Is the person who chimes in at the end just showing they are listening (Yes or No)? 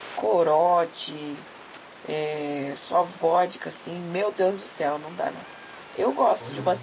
Yes